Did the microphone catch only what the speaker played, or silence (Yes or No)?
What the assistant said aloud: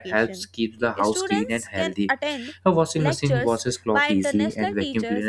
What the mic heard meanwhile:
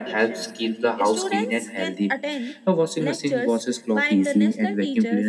Yes